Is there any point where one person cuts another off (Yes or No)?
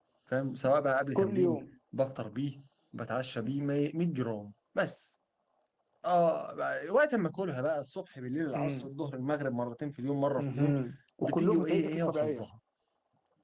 Yes